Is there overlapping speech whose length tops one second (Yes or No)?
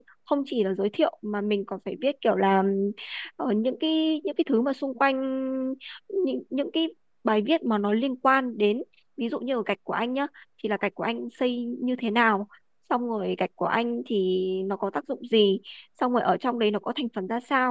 No